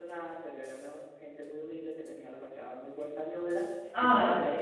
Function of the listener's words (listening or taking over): listening